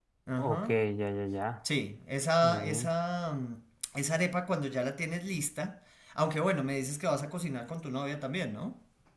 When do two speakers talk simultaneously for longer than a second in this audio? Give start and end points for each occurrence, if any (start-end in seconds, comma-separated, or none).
none